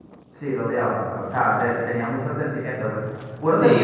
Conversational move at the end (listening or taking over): listening